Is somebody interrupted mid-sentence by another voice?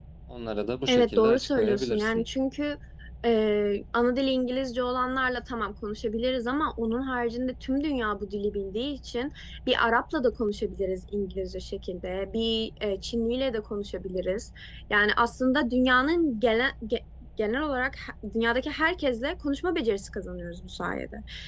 Yes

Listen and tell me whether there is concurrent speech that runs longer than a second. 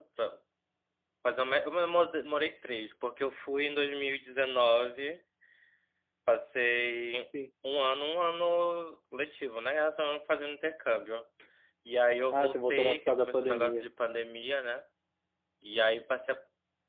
Yes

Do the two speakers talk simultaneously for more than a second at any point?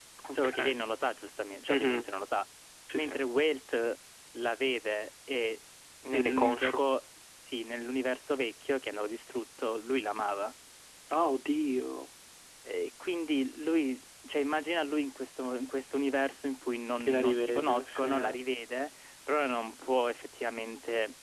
Yes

